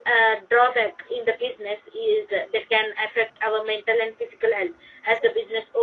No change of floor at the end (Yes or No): Yes